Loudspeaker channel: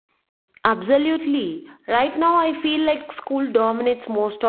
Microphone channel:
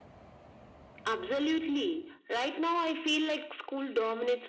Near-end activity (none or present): none